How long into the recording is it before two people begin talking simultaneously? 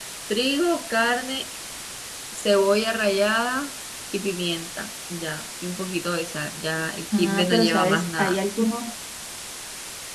7.1 s

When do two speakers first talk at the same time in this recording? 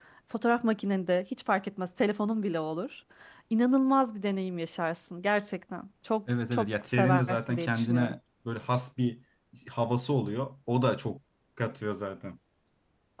6.5 s

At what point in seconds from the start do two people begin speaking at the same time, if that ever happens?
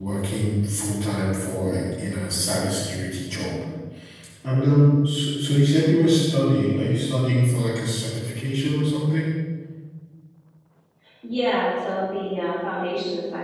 none

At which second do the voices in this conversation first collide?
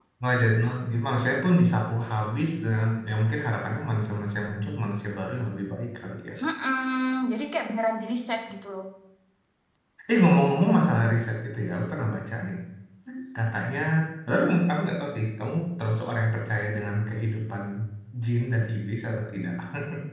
none

